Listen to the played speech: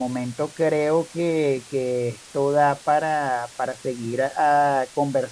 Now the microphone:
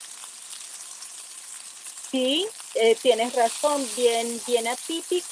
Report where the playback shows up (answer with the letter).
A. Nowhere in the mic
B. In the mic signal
A